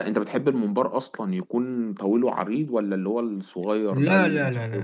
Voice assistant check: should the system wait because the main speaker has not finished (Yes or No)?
No